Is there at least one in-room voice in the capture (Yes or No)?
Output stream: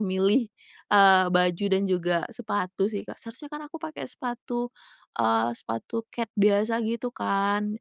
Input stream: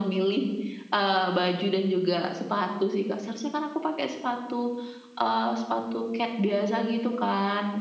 No